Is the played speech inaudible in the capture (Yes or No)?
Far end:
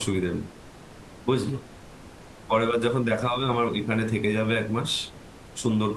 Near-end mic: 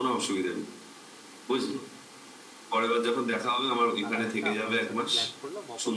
No